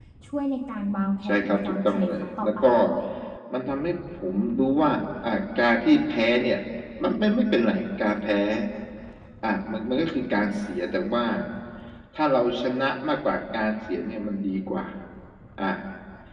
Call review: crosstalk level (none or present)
present